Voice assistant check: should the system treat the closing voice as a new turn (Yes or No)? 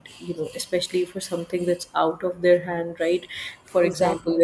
No